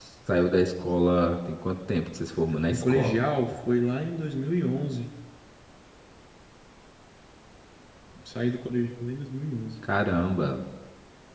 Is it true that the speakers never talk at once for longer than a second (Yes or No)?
Yes